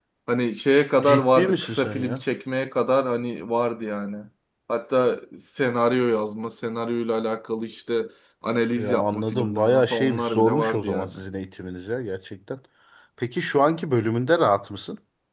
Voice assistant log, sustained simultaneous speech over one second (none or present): present